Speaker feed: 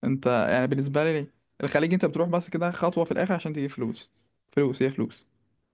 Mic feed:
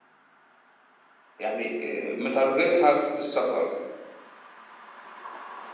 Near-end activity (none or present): present